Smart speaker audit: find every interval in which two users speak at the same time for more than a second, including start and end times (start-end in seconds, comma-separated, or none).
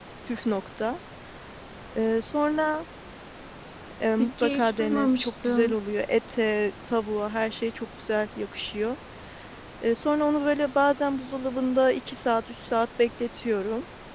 4.2-5.8